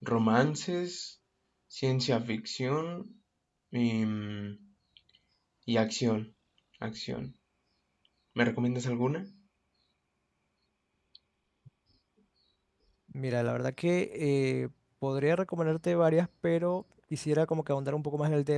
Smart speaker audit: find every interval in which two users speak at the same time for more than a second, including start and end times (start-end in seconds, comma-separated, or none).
none